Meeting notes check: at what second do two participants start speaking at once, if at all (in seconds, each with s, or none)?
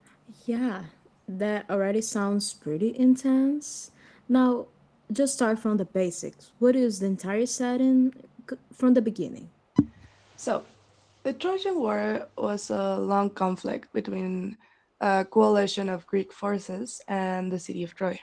none